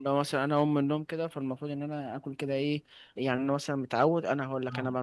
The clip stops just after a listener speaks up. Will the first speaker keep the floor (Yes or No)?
Yes